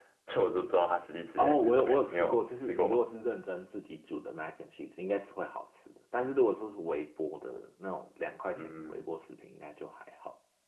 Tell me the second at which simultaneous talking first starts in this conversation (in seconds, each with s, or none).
1.4 s